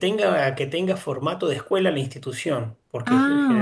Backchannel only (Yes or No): Yes